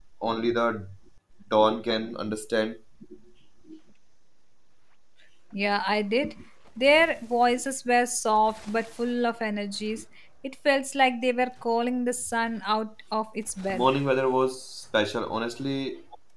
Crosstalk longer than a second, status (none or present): none